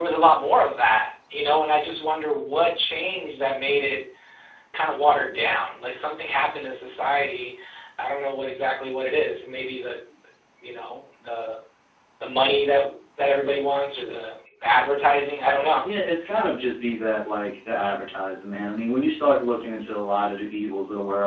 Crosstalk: none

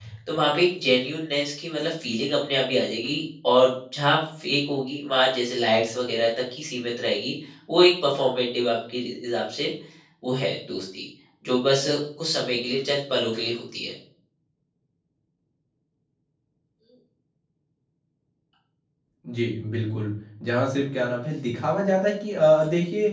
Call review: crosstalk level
none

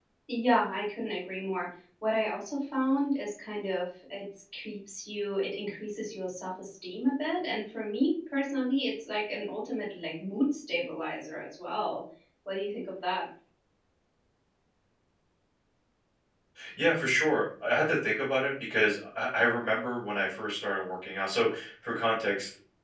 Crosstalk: none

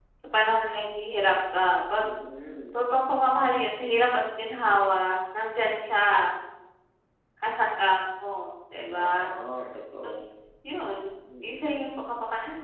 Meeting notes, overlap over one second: none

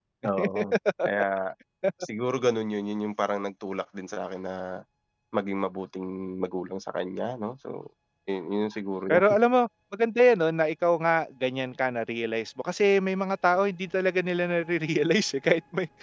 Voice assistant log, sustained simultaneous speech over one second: none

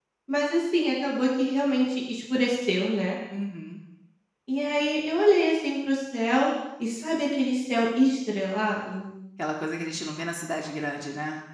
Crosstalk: none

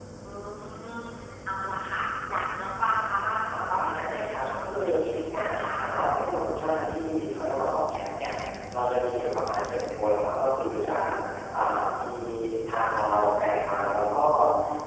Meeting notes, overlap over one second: present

